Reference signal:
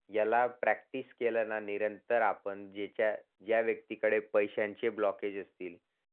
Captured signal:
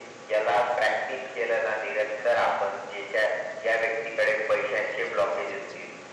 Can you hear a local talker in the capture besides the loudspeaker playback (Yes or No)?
No